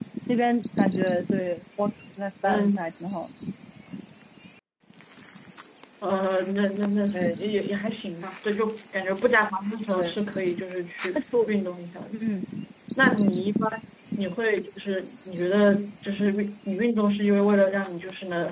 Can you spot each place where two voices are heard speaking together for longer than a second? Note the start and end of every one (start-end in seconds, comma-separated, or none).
none